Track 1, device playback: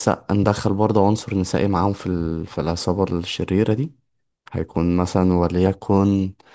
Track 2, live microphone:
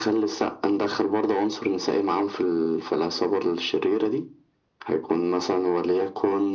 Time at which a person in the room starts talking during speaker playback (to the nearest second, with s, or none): none